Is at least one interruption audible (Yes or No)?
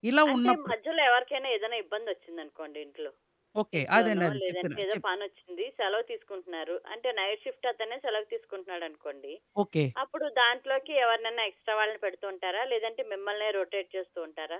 Yes